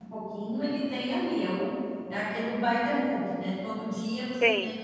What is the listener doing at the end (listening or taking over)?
listening